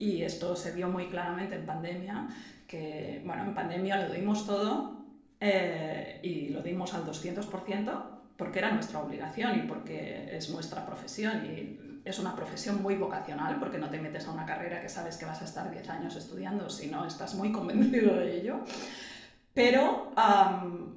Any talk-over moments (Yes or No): No